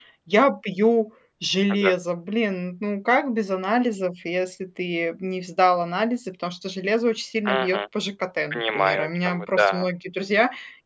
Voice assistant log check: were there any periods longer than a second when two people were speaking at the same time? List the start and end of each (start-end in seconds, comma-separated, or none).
8.5-9.9